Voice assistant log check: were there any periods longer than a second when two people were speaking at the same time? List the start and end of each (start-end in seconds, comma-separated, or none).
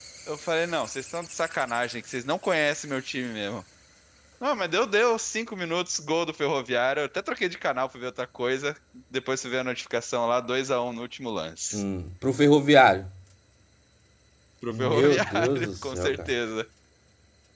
14.7-16.3